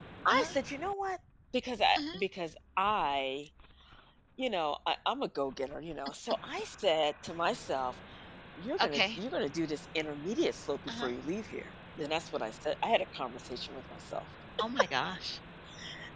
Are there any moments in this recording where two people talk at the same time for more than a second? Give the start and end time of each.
none

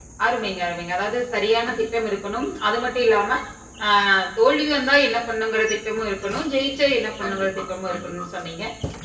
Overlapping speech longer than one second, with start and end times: 7.2-8.4

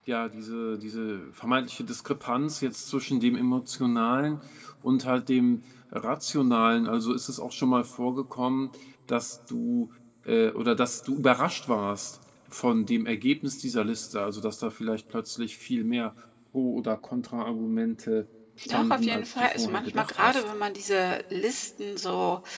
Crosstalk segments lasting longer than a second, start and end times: 18.6-20.4

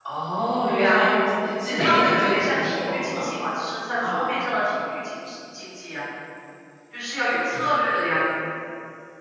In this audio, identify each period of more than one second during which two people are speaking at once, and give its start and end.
1.6-3.3

